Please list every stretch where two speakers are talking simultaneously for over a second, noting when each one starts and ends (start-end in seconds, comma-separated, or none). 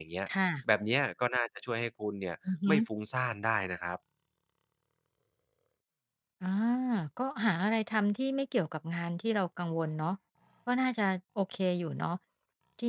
none